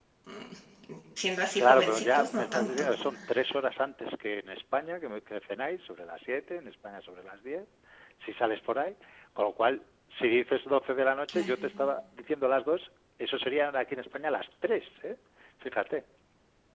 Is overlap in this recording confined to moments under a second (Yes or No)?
No